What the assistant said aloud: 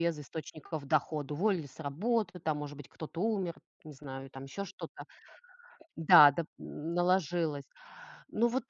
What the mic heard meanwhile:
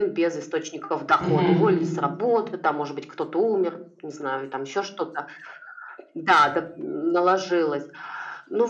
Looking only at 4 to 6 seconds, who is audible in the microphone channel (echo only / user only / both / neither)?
echo only